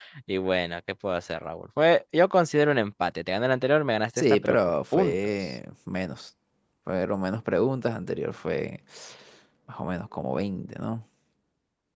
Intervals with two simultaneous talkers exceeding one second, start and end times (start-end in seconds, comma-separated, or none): 4.2-5.5